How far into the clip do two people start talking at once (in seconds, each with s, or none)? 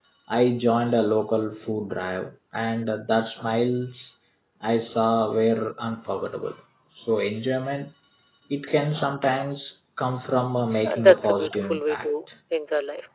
10.8 s